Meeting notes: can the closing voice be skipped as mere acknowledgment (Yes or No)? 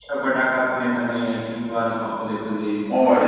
No